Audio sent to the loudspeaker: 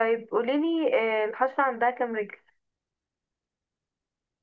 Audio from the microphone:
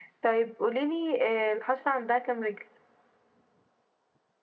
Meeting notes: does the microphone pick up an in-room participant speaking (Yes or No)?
No